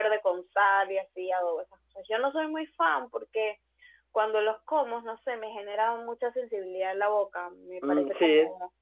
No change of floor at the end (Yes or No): No